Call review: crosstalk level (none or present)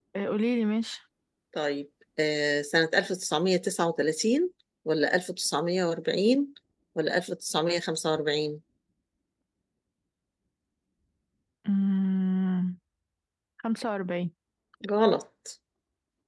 none